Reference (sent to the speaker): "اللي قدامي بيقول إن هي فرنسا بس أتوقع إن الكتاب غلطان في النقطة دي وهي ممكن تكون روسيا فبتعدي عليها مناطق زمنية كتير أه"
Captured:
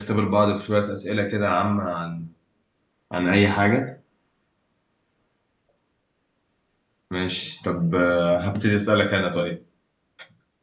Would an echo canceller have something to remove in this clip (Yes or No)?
No